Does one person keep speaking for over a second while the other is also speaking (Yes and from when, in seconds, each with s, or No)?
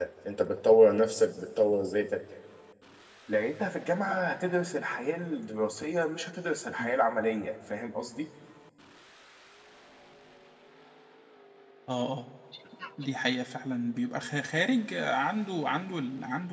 No